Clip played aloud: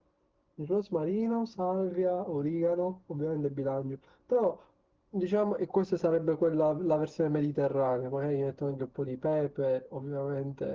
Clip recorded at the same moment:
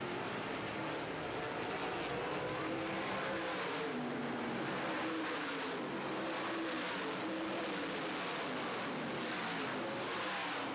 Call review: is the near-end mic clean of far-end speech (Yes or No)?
Yes